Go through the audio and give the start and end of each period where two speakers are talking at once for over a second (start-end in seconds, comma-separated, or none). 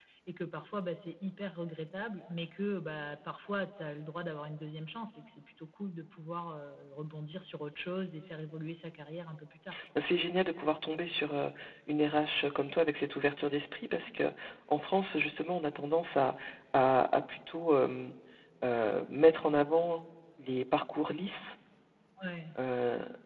none